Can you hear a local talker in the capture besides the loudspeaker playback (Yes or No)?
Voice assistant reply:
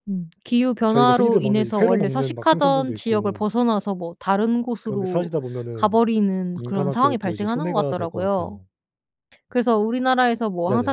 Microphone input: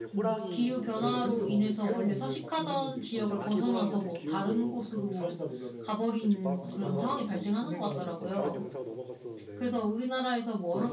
Yes